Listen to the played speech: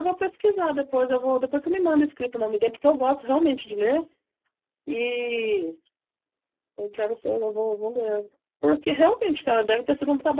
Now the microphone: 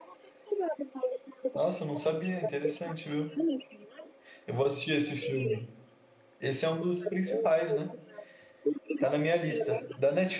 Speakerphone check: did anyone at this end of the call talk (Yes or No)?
Yes